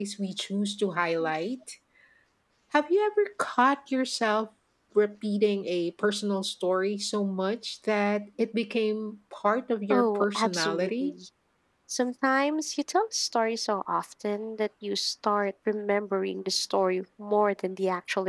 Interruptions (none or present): present